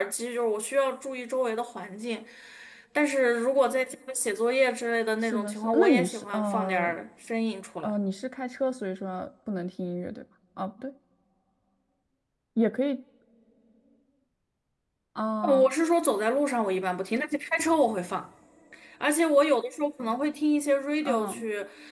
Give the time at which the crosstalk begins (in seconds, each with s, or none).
5.2 s